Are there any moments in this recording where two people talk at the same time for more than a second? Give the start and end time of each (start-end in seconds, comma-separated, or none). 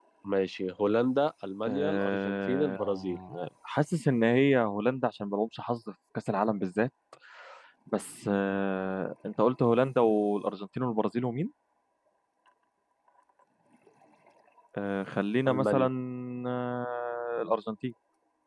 1.7-3.2